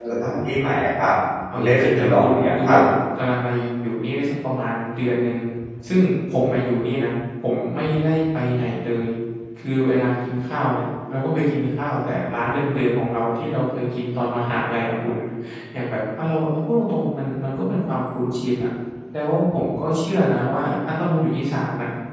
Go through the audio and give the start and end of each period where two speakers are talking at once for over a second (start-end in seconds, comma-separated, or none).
1.6-2.8